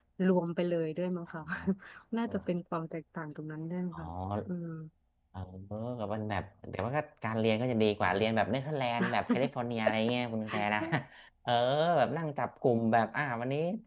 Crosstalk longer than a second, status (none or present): none